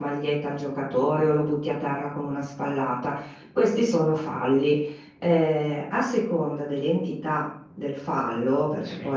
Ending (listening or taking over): listening